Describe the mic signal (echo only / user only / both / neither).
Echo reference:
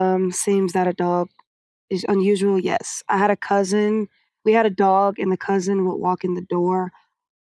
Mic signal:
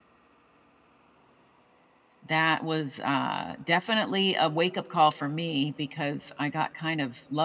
user only